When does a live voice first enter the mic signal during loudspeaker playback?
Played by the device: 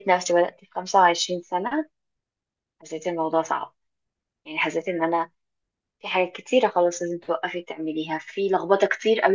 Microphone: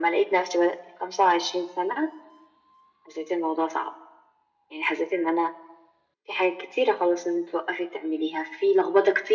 none

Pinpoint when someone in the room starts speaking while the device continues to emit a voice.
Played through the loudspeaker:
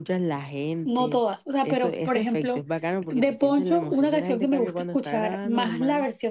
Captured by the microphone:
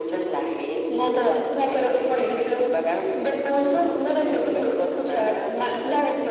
none

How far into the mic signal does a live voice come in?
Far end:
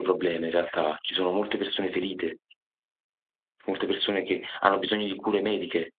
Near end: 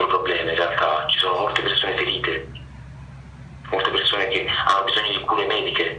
none

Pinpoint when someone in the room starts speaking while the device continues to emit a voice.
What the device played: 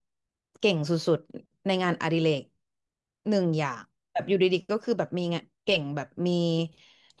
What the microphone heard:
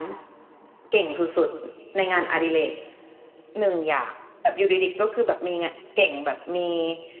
none

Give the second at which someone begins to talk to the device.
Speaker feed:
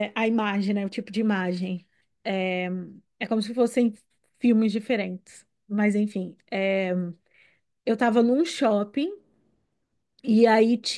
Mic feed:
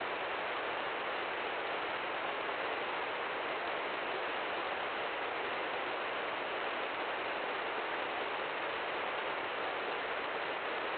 none

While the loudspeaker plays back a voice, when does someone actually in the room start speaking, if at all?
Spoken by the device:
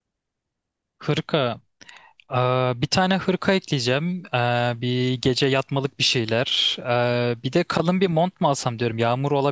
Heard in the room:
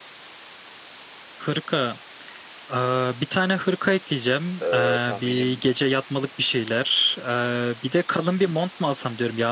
4.6 s

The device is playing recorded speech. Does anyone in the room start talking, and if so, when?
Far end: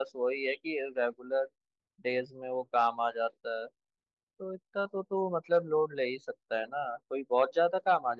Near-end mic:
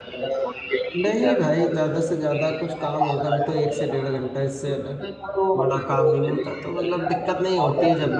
1.0 s

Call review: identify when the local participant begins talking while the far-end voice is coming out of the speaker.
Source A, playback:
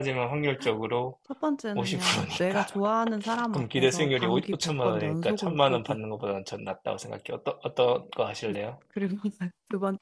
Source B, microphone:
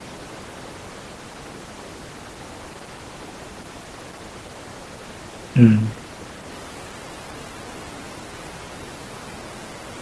5.6 s

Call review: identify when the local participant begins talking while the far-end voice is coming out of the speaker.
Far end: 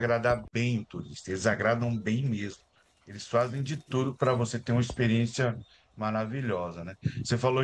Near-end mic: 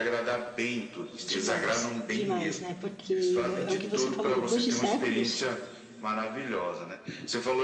1.2 s

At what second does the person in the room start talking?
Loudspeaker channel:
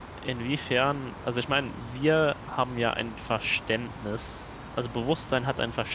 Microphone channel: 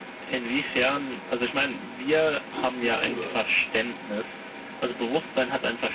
2.5 s

